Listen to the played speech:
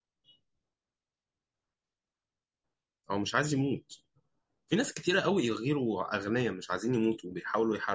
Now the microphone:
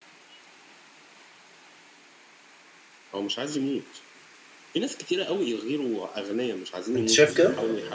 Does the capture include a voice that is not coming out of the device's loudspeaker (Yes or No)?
Yes